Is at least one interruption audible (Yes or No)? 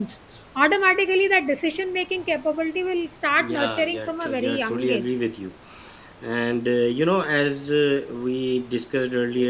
Yes